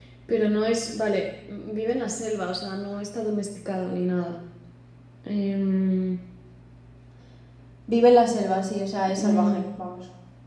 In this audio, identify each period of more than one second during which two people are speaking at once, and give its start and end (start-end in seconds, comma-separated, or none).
none